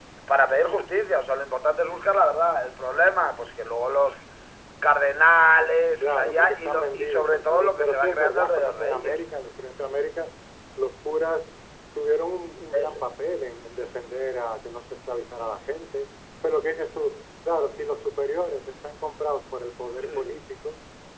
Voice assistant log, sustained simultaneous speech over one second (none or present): present